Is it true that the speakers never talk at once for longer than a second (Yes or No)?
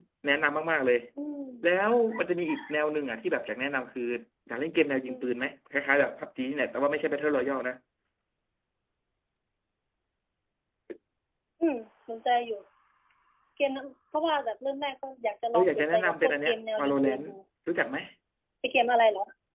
No